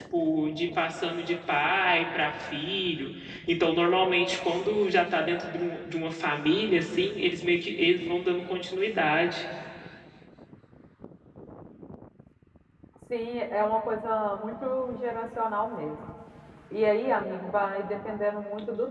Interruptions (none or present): none